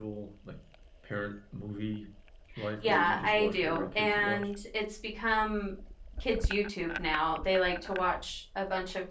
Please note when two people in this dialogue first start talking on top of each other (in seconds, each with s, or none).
2.8 s